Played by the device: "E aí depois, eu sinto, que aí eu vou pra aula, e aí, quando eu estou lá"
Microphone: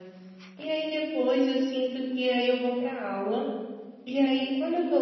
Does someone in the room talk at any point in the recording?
No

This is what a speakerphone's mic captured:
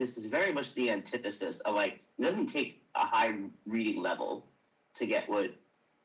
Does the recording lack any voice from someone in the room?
Yes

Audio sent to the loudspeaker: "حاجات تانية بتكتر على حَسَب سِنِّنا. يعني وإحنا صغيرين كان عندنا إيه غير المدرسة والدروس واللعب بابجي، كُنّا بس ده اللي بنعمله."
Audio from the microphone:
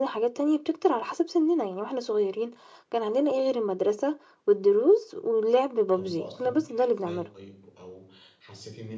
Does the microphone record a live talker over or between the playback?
Yes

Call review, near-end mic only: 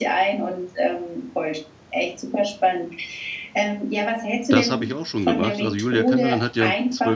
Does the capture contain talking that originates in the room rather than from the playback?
Yes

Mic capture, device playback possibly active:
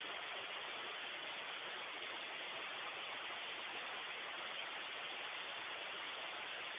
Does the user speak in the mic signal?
No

